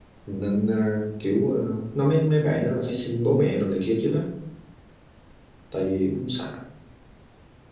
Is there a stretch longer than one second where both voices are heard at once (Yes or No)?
No